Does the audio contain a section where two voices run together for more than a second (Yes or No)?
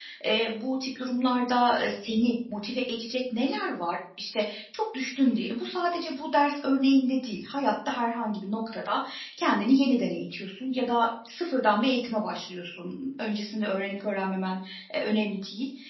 No